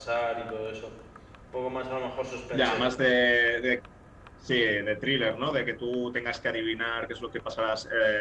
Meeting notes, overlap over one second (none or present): none